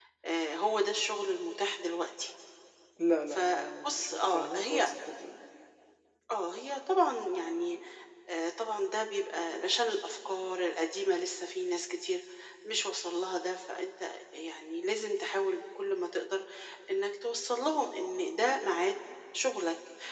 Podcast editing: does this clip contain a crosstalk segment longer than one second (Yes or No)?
Yes